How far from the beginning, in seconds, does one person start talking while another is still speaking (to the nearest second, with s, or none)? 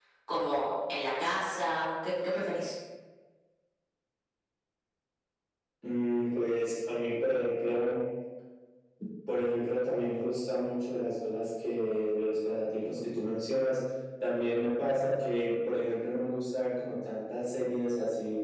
none